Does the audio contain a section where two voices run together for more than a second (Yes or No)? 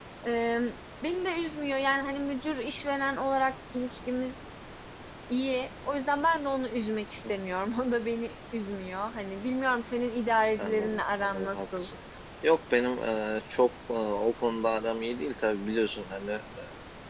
Yes